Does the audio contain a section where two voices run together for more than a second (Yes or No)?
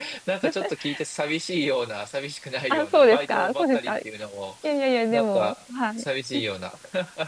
Yes